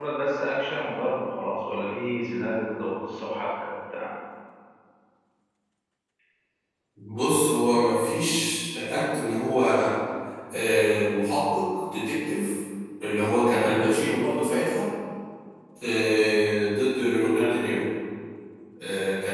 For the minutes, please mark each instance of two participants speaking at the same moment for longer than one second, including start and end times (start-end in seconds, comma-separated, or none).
none